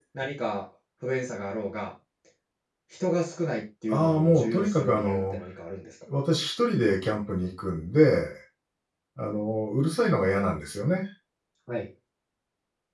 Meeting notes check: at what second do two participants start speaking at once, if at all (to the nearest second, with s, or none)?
4 s